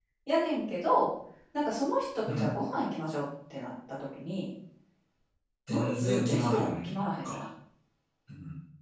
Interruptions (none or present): present